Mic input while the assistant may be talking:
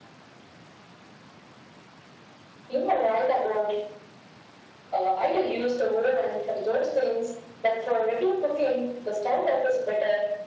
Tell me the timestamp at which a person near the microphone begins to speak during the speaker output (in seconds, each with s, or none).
none